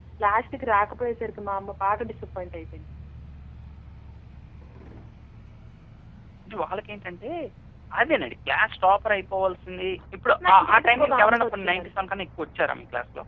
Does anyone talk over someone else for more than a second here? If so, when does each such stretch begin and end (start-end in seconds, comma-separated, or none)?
10.5-12.0